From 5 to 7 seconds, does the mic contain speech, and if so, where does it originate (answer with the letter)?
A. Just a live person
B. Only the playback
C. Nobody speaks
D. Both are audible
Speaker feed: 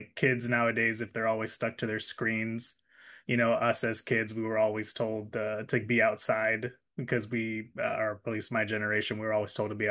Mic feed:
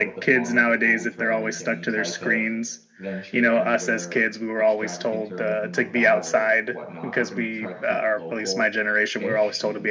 D